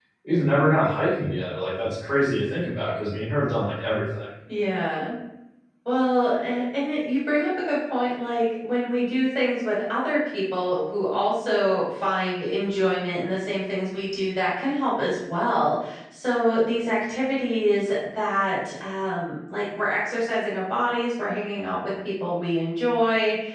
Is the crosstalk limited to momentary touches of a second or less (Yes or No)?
Yes